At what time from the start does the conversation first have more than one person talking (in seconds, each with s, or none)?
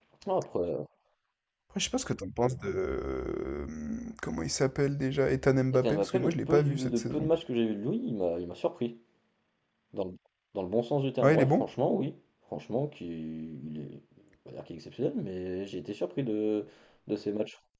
5.7 s